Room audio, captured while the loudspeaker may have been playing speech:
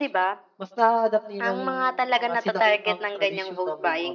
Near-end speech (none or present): present